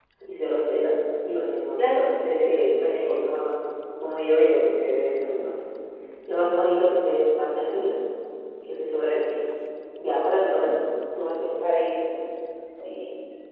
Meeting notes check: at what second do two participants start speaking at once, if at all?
2 s

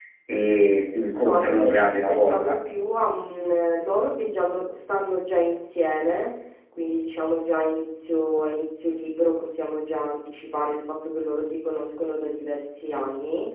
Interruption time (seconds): 1 s

